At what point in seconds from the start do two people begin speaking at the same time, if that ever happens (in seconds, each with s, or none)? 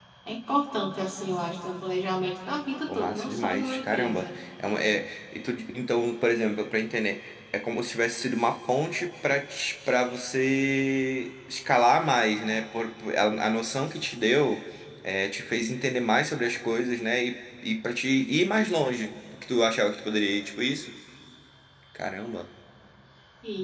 2.9 s